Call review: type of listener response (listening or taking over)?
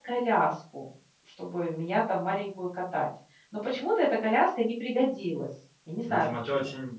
taking over